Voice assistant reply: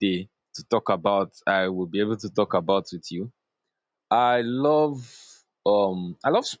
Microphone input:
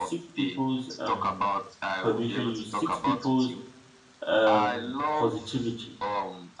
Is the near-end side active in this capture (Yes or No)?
Yes